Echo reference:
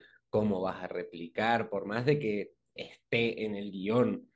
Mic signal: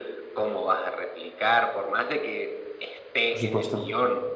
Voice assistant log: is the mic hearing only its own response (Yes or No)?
No